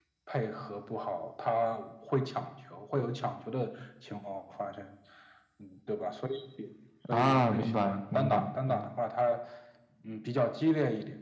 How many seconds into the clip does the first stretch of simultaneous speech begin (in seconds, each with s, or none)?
7.0 s